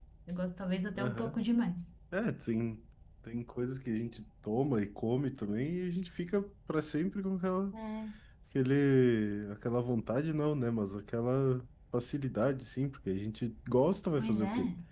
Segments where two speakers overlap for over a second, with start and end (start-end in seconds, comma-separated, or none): none